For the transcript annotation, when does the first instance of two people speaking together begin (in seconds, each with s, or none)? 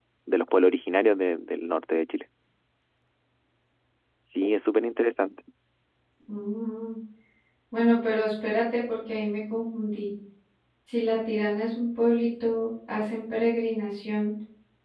none